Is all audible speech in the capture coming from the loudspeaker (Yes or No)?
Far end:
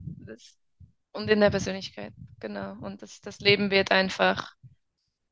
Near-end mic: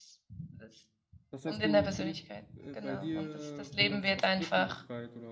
No